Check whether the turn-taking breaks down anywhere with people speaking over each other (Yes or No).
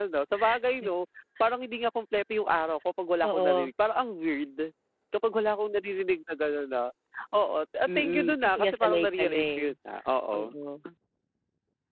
Yes